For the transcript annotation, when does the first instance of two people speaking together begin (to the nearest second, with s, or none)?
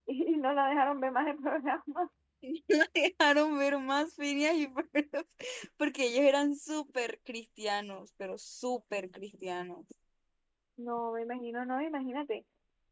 none